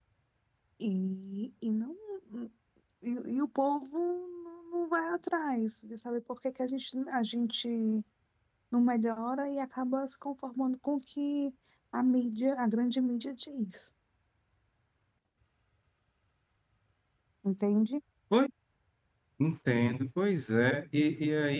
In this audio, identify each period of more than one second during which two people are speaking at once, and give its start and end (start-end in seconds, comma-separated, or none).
none